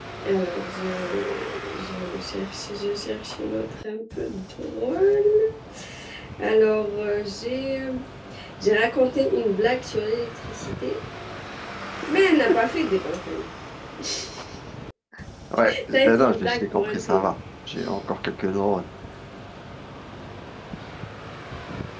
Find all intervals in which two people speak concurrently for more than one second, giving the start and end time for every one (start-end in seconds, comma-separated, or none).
15.9-17.3